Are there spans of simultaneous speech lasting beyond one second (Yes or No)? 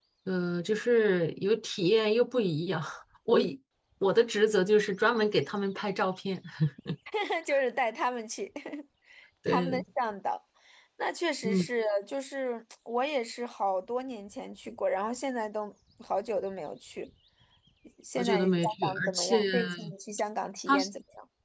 Yes